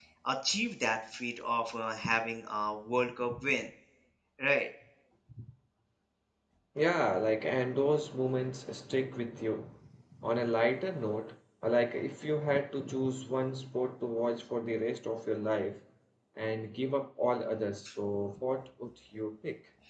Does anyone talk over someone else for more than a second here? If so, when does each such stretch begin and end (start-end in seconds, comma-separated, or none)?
none